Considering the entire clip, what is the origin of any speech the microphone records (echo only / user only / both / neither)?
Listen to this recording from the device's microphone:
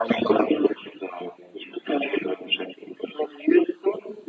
echo only